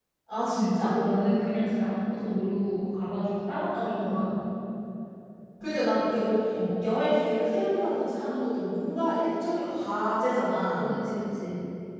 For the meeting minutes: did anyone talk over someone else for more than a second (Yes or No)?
No